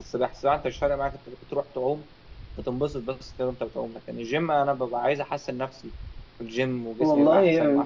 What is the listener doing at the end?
taking over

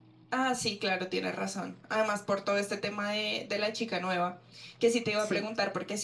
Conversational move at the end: listening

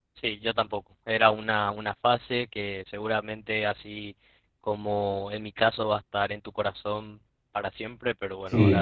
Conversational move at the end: taking over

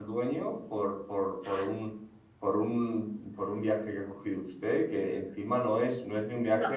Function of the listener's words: listening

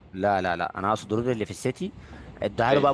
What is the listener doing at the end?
listening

